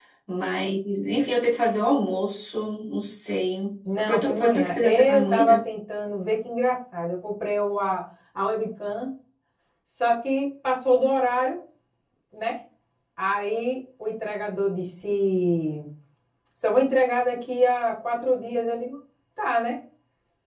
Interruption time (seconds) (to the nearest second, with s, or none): 4 s